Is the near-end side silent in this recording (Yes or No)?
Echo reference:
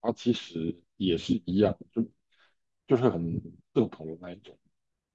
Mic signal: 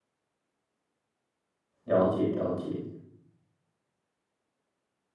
No